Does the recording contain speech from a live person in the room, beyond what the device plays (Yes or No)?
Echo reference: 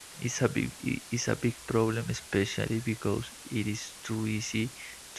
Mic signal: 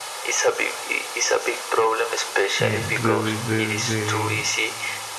Yes